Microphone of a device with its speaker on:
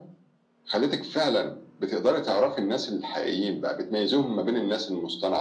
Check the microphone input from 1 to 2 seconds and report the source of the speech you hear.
echo only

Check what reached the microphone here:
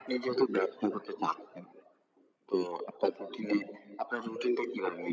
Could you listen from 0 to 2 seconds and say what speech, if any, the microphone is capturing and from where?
echo only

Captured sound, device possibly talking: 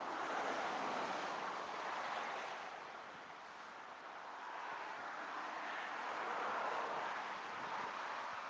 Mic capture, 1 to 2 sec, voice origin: neither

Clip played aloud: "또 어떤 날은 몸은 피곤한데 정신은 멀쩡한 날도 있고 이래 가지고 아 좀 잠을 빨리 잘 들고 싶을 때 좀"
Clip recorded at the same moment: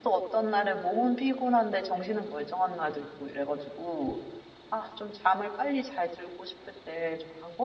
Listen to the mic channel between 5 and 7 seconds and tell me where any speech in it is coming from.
echo only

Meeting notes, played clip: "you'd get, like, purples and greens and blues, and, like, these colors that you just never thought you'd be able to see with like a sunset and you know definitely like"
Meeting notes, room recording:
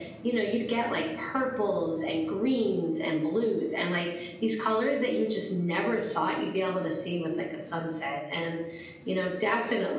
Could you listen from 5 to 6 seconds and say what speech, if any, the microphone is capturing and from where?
echo only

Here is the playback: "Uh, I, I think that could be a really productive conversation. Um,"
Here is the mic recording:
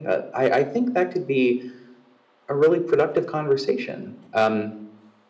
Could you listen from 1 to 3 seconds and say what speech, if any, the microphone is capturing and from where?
echo only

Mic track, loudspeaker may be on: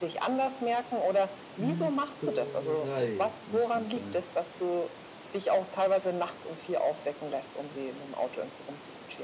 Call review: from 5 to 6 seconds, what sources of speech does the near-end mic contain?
echo only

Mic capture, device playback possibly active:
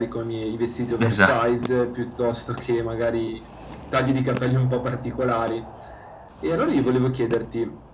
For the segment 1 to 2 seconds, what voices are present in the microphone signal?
both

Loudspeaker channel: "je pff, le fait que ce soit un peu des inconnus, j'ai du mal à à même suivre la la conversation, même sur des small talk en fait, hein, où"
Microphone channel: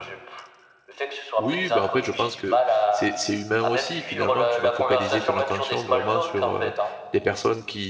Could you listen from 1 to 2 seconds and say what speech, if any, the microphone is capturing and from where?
both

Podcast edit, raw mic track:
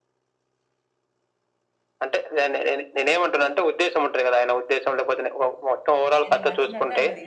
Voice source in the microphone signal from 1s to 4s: echo only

